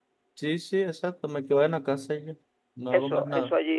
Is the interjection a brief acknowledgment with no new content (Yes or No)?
No